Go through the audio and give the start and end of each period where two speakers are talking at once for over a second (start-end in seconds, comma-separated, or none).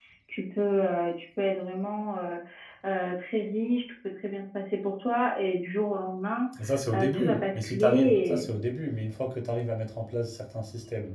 6.9-8.4